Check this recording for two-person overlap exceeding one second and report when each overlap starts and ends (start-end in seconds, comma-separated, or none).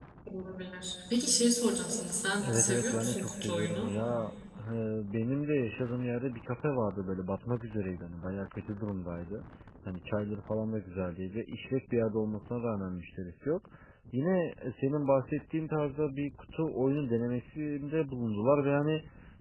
2.4-3.9